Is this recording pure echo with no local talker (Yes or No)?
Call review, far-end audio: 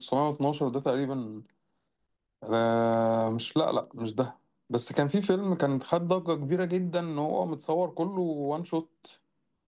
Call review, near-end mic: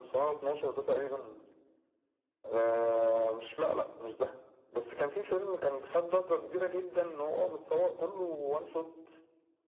Yes